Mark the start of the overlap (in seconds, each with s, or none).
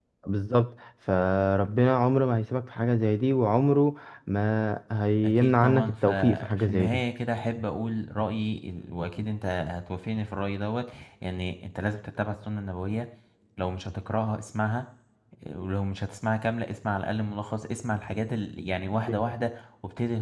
5.2 s